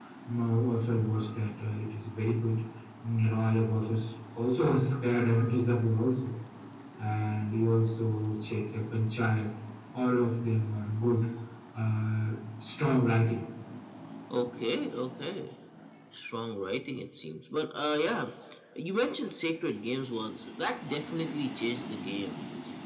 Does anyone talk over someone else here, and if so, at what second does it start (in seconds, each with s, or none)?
none